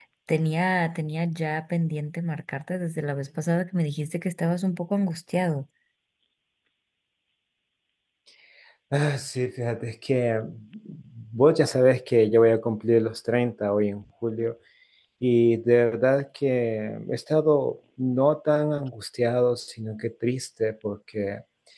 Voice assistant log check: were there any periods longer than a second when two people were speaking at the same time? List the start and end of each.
none

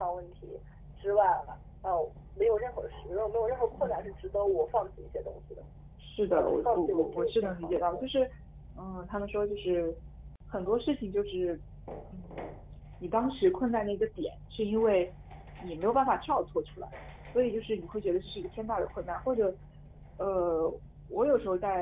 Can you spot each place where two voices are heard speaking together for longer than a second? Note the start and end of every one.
6.3-8.0

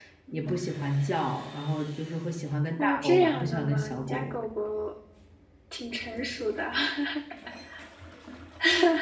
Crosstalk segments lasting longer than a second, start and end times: 2.8-4.4

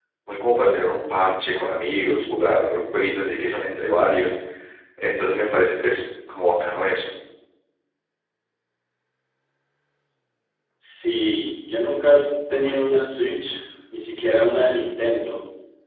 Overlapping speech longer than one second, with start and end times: none

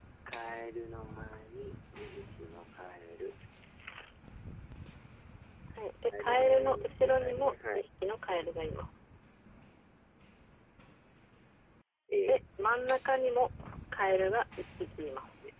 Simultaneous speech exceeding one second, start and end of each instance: 6.2-7.9

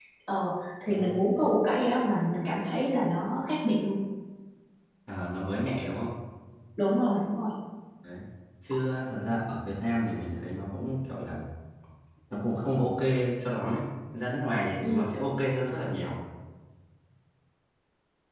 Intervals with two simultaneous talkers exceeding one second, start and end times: none

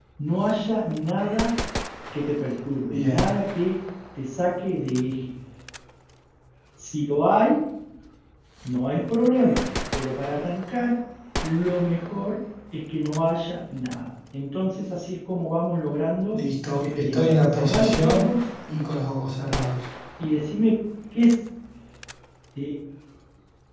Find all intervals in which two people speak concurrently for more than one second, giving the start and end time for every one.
16.9-18.3

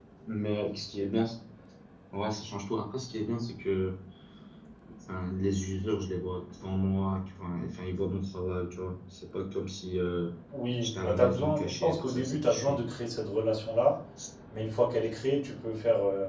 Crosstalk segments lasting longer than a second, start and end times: 10.8-12.8

